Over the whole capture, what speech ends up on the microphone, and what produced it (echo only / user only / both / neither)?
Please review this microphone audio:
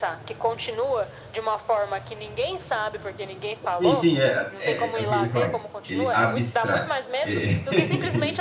both